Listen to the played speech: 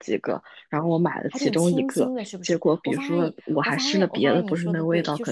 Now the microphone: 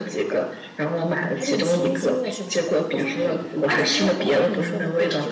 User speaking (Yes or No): Yes